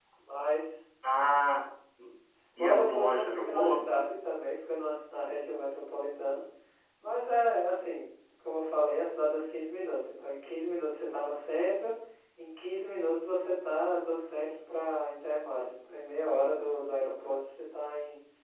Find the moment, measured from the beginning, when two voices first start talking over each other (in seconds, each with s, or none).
2.6 s